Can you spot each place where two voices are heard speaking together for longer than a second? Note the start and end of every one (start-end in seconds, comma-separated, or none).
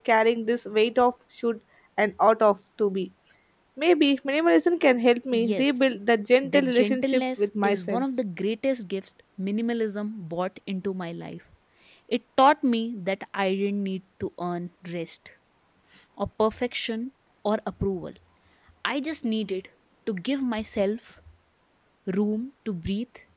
6.5-8.0